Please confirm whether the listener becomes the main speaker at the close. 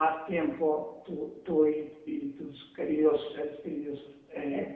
No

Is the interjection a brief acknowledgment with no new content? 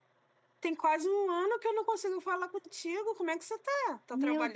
No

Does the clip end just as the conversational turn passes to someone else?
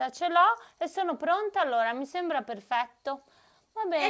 Yes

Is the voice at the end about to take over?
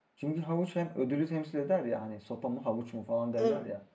No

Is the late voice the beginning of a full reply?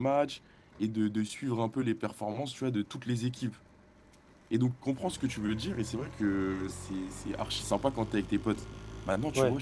No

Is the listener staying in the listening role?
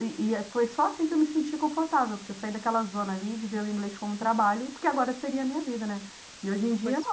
Yes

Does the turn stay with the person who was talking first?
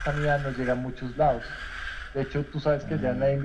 Yes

